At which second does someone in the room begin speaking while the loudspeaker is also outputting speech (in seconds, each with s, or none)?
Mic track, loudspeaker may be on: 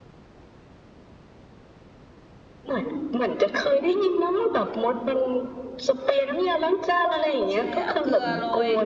7.5 s